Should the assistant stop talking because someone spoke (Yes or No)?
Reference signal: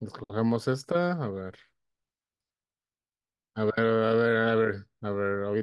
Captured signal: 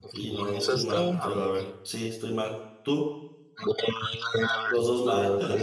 Yes